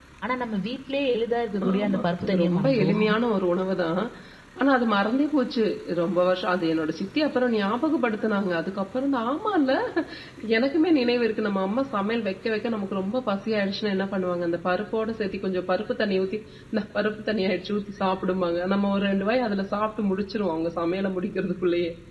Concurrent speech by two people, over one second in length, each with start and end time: 1.6-3.1

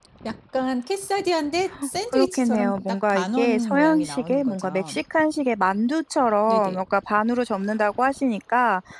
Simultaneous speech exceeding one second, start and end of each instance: 2.1-5.0

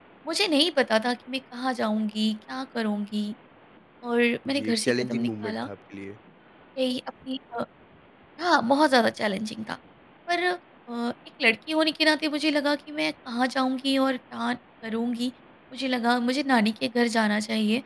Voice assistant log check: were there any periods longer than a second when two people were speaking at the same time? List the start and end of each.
4.4-5.7

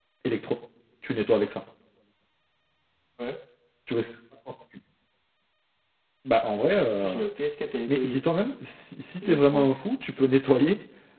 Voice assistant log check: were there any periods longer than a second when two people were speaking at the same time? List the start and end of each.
none

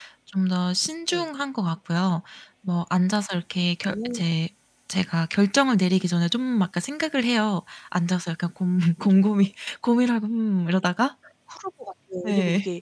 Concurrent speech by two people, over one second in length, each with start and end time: none

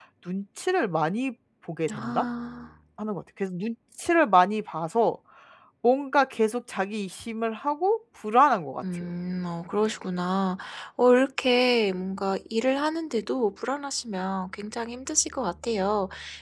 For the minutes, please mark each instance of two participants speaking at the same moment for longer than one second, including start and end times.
none

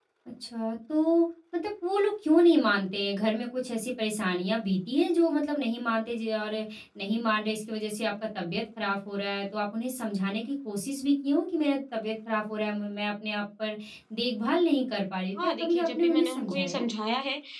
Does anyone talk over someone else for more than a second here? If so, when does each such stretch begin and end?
15.4-16.8

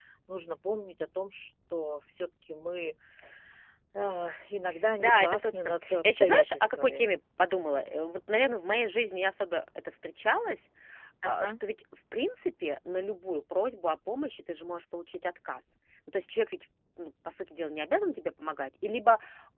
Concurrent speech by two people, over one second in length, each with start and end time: 5.0-7.0

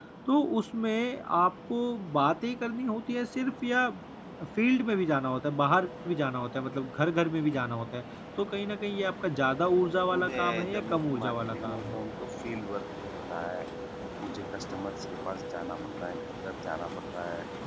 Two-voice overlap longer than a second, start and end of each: 10.1-12.0

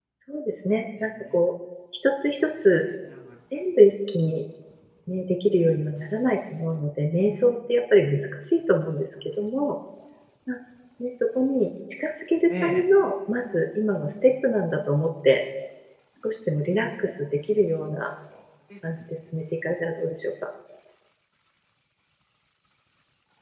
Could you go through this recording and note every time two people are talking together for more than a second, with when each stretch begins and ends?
none

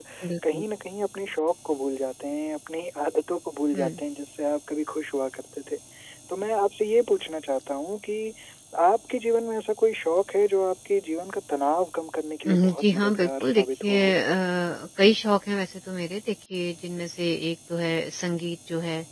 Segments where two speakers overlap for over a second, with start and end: 12.5-14.1

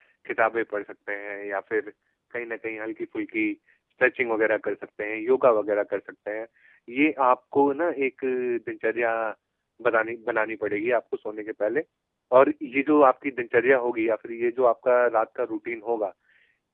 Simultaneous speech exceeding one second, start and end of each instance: none

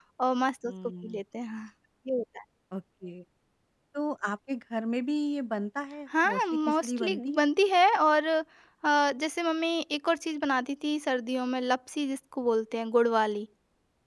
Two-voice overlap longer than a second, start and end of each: 6.2-7.5

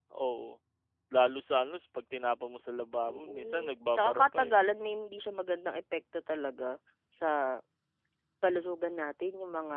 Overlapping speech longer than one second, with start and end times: 3.1-4.5

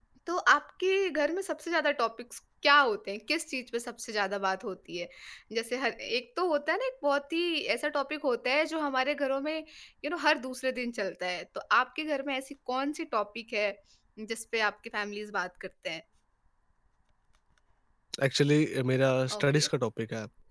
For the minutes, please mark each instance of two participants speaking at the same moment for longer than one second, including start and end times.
none

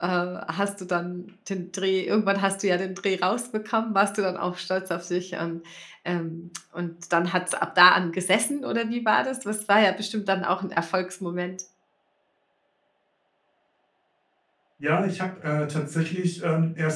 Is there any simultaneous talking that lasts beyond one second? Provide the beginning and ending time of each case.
none

